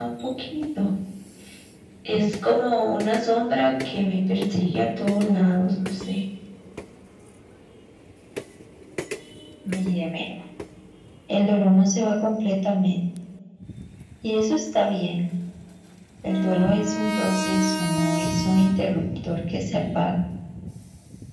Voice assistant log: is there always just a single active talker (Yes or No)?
Yes